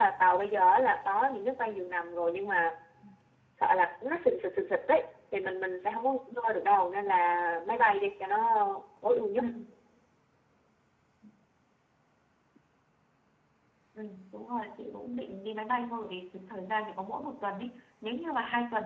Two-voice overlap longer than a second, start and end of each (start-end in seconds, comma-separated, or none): none